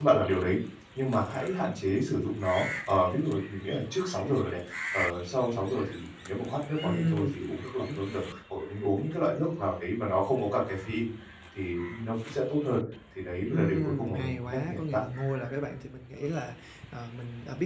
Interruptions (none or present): present